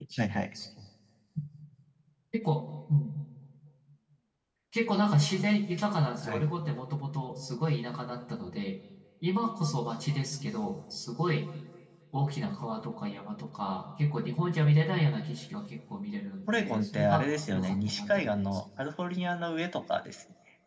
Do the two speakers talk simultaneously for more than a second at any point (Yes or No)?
Yes